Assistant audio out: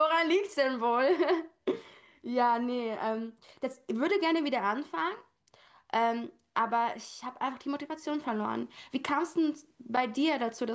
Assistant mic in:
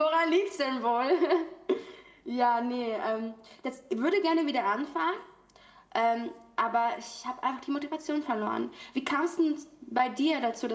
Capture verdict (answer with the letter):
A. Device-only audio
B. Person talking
A